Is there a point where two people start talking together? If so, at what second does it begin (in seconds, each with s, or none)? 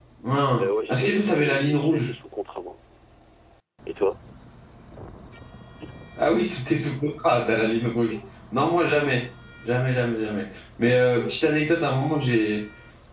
0.6 s